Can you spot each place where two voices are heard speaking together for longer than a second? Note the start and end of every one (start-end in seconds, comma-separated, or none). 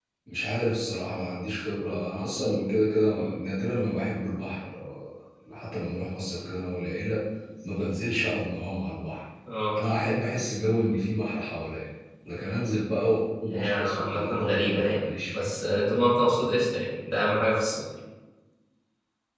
13.5-15.5